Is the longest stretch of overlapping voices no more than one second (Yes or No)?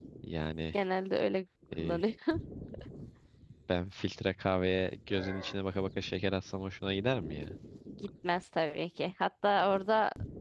Yes